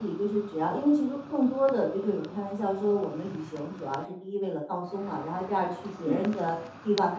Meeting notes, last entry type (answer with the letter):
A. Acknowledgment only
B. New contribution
A